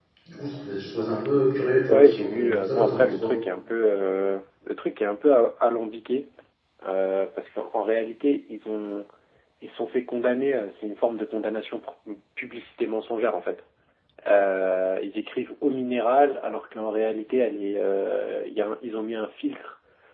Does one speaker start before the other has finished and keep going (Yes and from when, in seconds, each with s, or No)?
Yes, from 1.9 s